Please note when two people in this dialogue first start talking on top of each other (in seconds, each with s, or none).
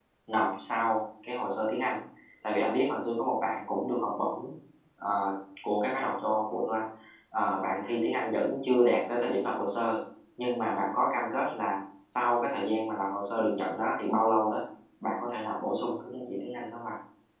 none